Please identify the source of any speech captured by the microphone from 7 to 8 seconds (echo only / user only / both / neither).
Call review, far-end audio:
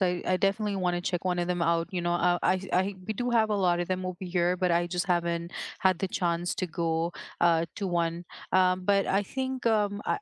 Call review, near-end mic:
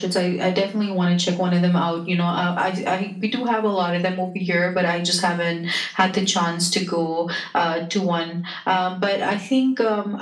echo only